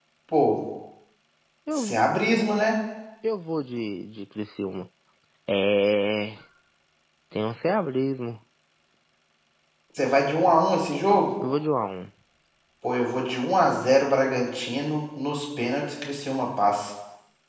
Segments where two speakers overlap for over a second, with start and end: none

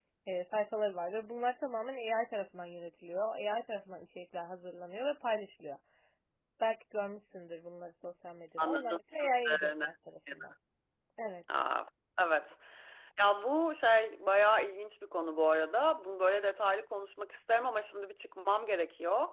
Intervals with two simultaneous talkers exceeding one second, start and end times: 8.6-9.8

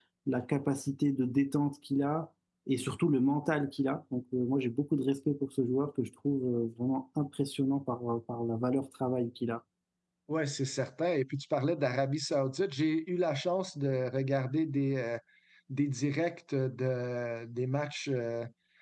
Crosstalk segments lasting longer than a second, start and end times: none

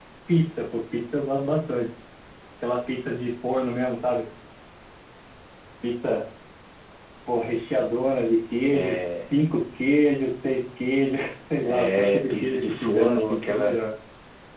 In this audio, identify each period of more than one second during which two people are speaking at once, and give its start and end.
11.9-13.8

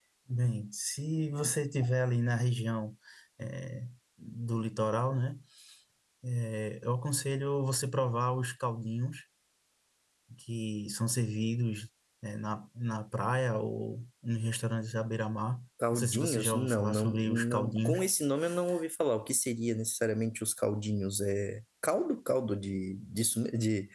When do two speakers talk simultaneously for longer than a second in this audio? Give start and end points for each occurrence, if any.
15.9-18.0

